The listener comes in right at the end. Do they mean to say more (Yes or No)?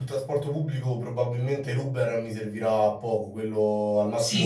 Yes